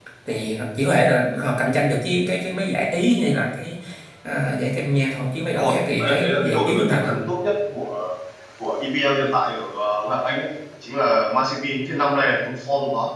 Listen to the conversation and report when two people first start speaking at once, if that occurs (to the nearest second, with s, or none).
6 s